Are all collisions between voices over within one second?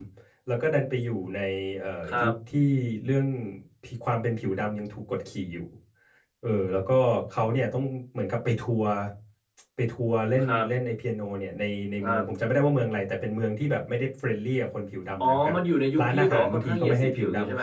No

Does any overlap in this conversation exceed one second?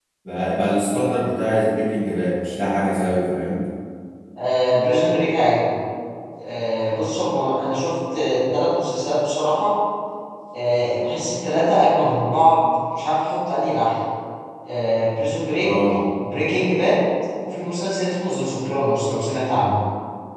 No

